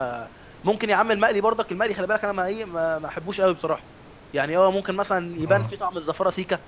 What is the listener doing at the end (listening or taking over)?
listening